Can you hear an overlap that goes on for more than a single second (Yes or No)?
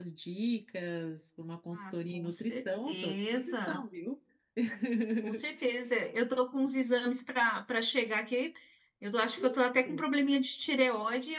Yes